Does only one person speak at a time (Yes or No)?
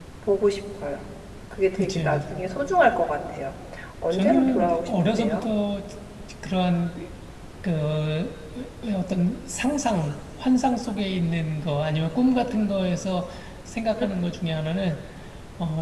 No